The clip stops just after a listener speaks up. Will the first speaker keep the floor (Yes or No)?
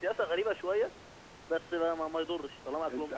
No